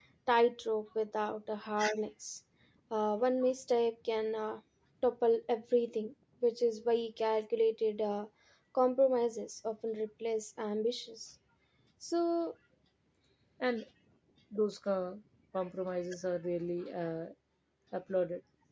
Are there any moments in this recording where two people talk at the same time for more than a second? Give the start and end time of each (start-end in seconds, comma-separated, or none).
none